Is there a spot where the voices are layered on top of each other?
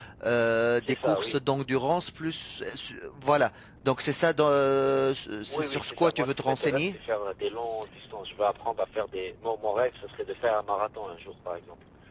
Yes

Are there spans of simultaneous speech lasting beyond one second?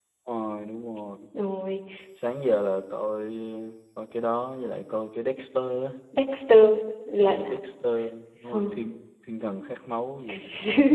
No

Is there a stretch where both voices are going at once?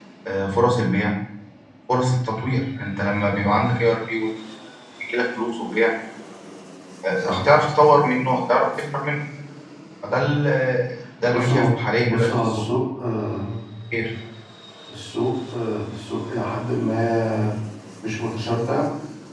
Yes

